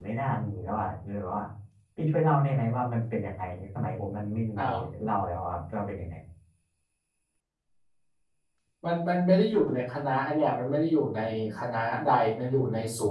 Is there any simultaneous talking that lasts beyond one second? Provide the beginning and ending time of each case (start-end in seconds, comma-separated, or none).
none